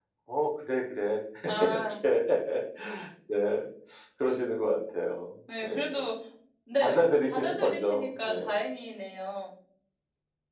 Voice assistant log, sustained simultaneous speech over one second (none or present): present